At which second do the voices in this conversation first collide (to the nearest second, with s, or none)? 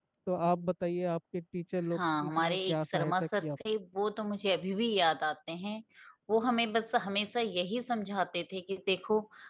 2 s